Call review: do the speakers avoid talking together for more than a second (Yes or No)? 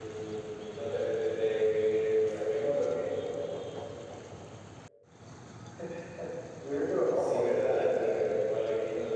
No